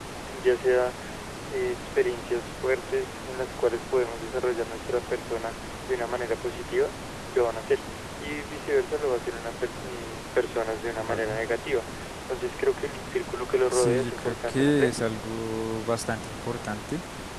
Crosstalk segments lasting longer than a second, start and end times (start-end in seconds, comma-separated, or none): 13.7-14.9